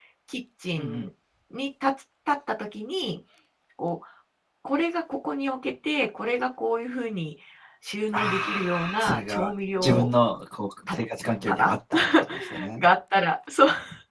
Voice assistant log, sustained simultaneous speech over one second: present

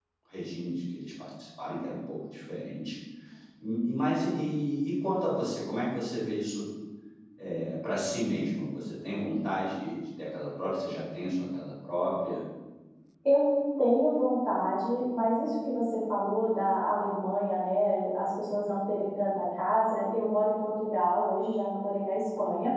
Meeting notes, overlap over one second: none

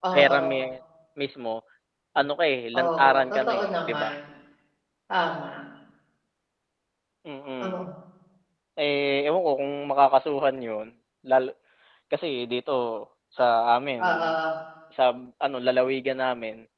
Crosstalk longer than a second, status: present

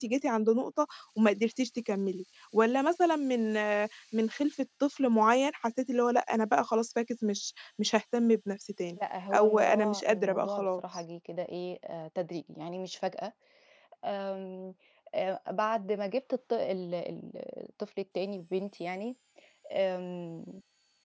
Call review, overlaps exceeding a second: present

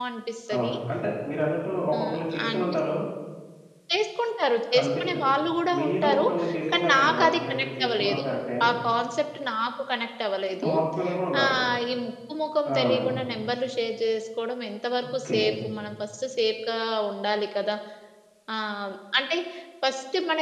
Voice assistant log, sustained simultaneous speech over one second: present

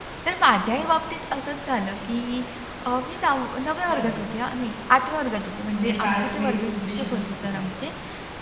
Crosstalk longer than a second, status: present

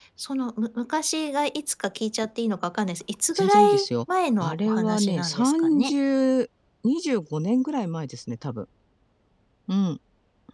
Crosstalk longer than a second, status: present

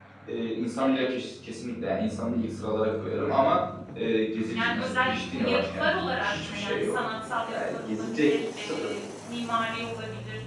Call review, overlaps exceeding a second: present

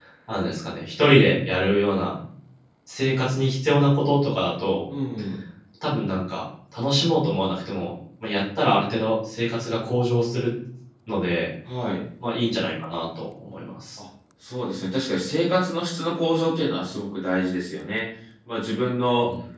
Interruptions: none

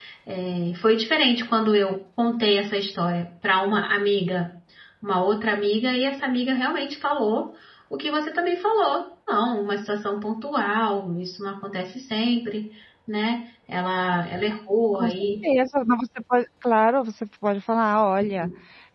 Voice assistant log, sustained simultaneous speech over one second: none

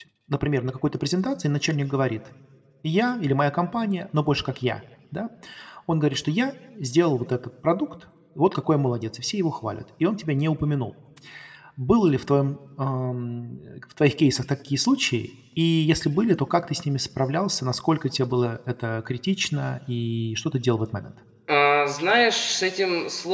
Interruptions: none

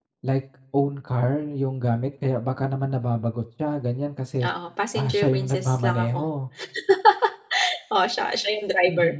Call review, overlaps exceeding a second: present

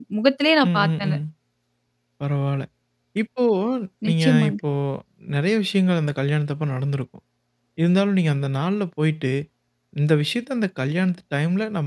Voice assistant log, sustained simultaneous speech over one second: none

